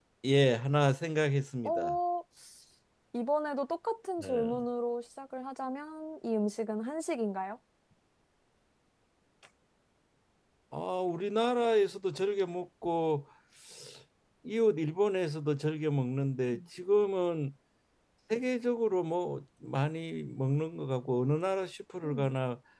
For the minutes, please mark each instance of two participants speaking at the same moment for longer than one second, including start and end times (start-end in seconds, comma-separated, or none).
none